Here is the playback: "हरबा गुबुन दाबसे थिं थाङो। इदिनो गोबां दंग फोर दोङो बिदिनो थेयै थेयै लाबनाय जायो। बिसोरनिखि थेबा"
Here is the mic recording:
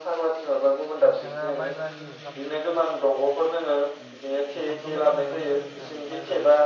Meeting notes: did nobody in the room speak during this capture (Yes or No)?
No